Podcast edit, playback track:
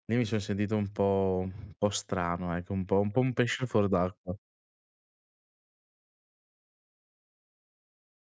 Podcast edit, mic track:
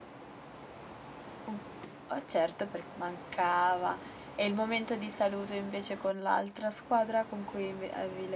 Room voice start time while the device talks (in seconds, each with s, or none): 1.5 s